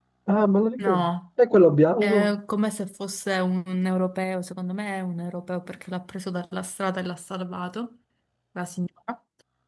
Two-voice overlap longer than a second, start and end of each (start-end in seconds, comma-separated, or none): none